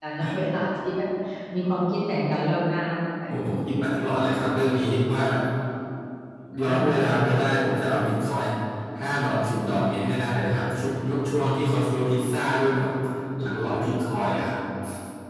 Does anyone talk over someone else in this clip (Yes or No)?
Yes